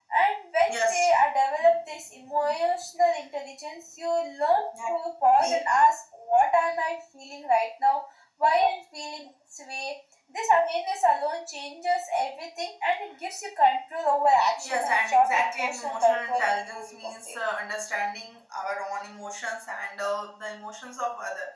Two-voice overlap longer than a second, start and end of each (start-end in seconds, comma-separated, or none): 14.6-17.4